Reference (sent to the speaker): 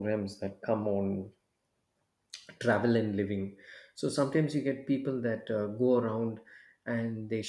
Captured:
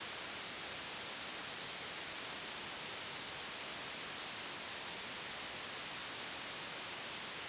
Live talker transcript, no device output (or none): none